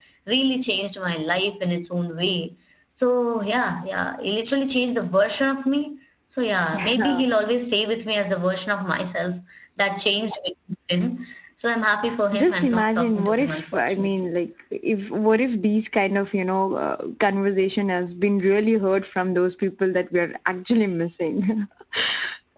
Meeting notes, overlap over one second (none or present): present